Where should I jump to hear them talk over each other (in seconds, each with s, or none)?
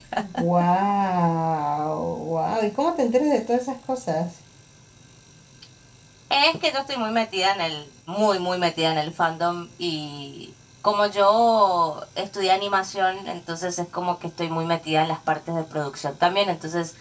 none